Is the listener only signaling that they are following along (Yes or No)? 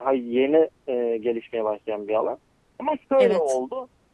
Yes